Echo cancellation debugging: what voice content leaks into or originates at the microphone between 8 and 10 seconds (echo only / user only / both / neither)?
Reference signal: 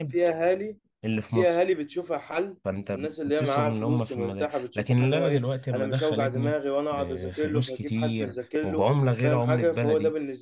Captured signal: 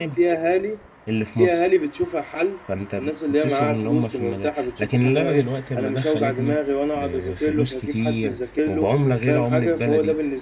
echo only